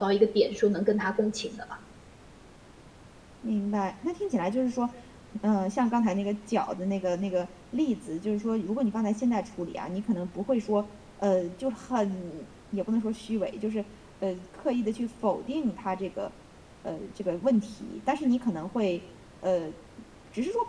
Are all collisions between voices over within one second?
Yes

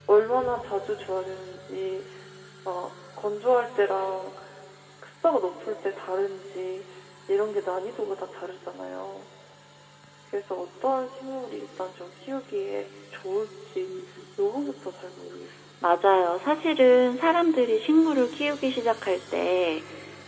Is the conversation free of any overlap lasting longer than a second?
Yes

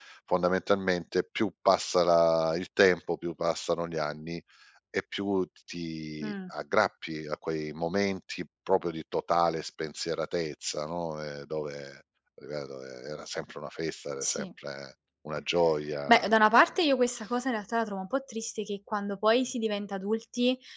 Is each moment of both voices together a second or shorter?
Yes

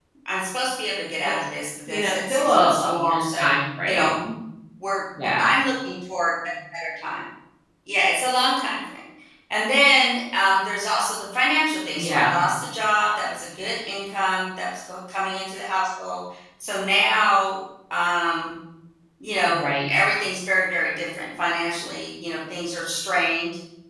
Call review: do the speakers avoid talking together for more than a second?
No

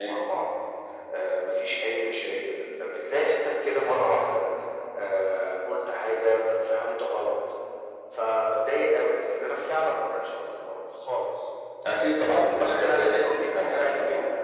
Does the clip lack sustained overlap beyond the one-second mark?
No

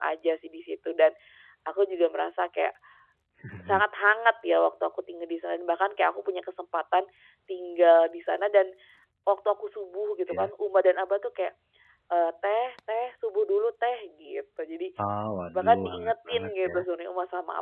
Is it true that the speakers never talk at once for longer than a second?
No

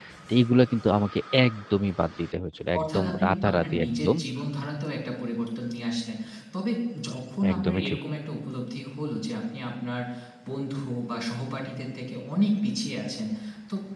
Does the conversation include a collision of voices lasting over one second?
Yes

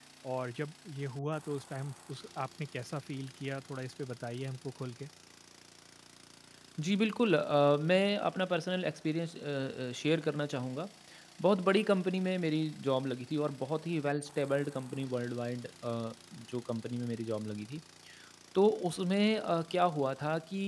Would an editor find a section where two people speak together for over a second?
No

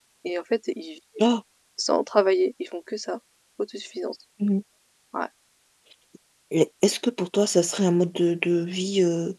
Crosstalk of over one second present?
No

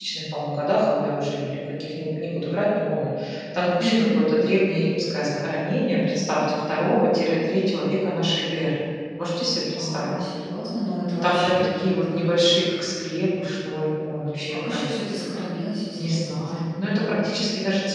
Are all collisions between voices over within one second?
No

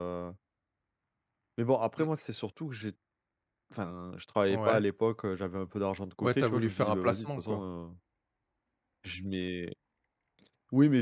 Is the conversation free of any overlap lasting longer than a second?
No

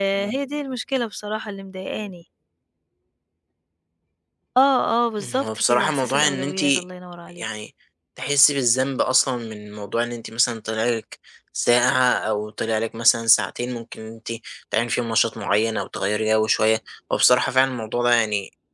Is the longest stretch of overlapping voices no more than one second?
No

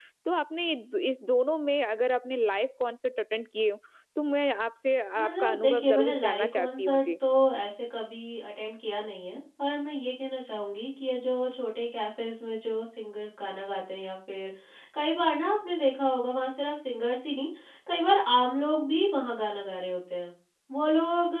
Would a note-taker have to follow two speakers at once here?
Yes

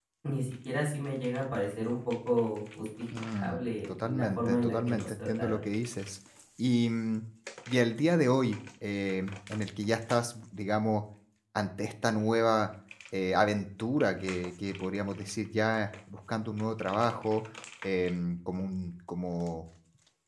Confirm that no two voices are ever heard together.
No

